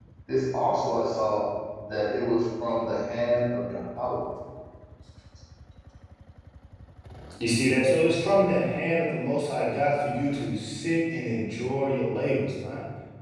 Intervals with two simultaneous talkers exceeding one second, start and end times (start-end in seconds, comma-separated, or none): none